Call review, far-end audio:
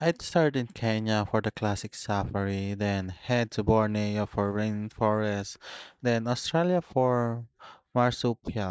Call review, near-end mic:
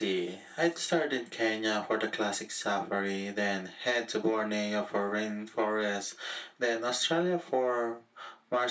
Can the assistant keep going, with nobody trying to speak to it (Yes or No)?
Yes